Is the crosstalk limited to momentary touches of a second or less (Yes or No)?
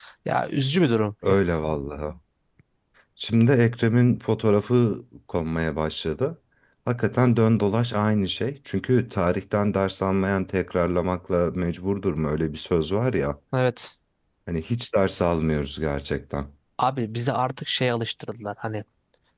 Yes